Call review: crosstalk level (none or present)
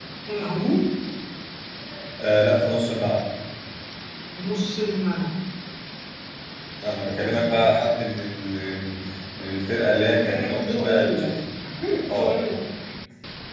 present